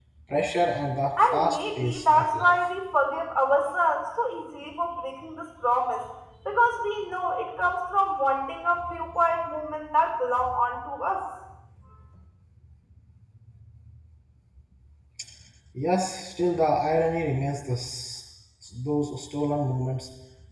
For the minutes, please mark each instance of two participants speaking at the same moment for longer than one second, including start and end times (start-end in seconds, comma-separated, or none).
1.3-2.5